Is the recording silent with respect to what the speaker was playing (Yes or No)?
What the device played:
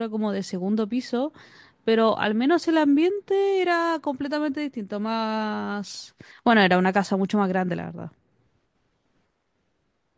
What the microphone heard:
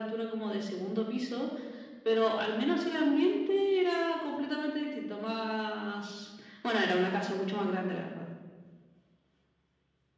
No